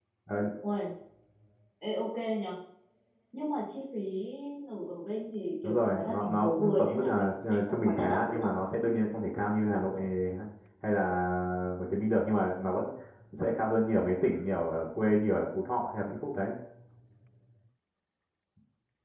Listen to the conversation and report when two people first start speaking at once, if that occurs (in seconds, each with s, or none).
5.6 s